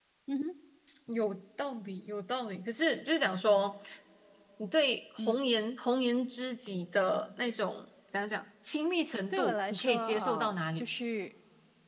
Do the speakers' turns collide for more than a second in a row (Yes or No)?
Yes